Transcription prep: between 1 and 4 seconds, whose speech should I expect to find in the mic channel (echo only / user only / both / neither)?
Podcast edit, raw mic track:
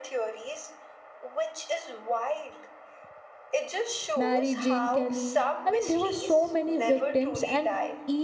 echo only